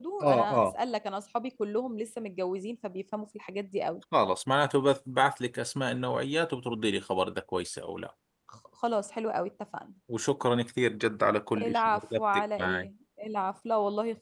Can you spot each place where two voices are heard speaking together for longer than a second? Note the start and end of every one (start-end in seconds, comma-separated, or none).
11.6-12.9